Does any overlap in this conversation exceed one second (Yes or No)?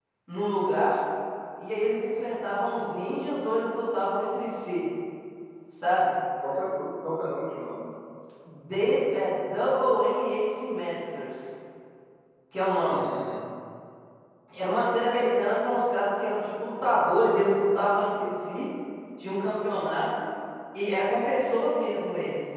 No